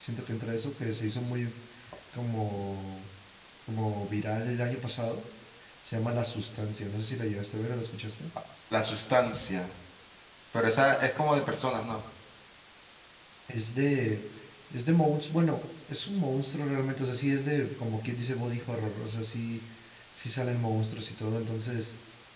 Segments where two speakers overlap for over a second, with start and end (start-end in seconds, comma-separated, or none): none